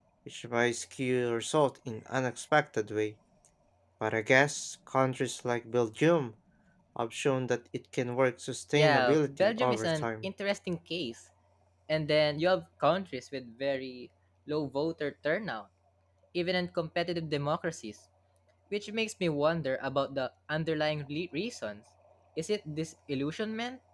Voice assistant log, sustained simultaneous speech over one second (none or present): present